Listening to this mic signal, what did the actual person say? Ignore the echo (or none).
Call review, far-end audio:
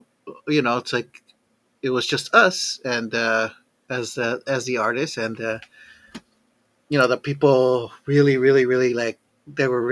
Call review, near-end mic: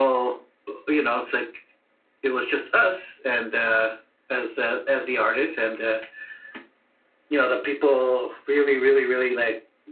none